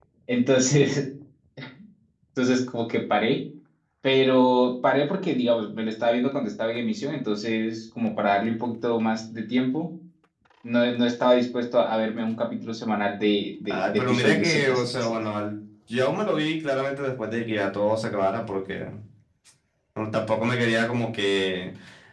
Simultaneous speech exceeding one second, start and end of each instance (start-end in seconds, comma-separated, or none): 13.7-15.1